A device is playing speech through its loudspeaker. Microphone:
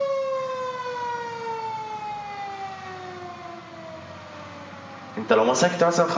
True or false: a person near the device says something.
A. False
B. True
B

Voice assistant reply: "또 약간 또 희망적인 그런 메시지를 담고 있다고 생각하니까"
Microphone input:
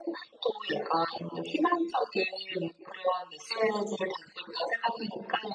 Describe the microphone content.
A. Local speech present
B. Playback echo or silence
B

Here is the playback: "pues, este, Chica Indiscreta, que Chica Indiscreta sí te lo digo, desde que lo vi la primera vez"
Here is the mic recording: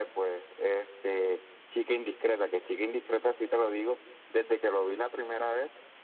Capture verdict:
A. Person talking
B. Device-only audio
B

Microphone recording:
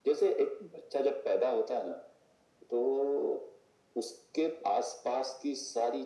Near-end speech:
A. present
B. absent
B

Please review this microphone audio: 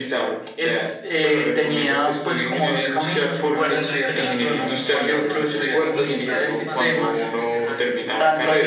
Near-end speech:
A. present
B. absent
A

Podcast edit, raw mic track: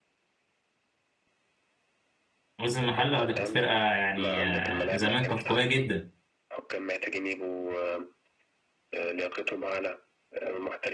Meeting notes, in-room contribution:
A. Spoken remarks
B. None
A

